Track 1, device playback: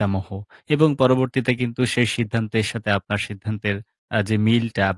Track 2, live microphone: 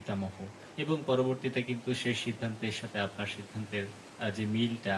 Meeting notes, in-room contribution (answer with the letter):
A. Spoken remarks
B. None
B